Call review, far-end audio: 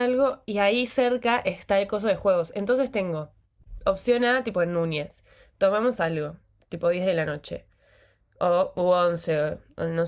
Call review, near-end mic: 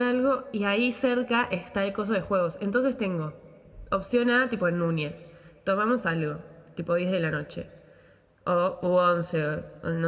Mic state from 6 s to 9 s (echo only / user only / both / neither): echo only